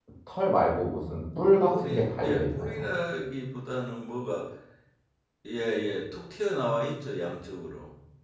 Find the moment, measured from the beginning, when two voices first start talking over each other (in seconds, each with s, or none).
1.6 s